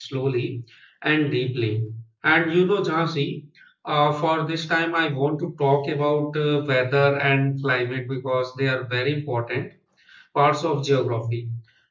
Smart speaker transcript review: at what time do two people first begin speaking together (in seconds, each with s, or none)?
none